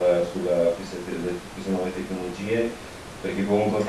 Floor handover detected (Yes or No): No